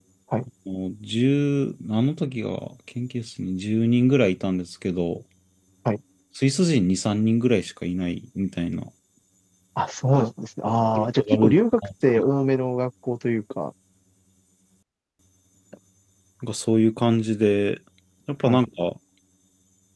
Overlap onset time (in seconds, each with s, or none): 10.6 s